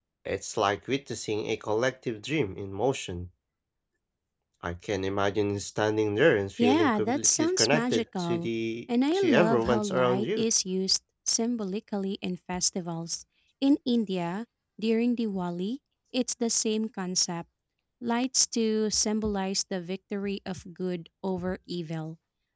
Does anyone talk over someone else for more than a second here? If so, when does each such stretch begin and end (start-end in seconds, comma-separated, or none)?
6.6-8.5, 9.1-10.4